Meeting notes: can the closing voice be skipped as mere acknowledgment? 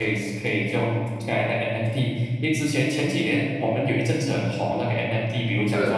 Yes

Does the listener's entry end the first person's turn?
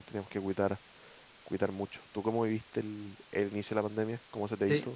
Yes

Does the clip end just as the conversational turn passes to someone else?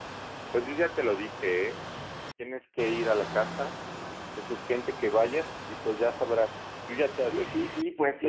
Yes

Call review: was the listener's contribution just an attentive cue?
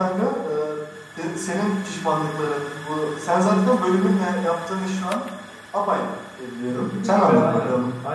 No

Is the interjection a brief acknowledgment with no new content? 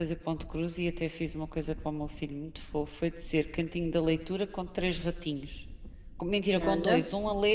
Yes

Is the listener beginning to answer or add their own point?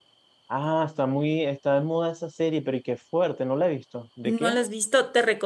Yes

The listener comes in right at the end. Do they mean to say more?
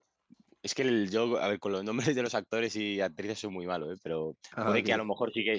No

